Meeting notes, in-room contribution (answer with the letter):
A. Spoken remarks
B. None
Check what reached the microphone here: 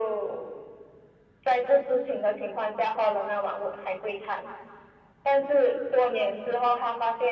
B